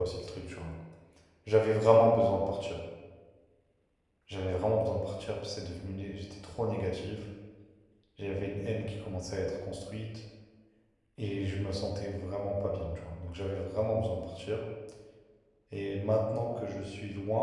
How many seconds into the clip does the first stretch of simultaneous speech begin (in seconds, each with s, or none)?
none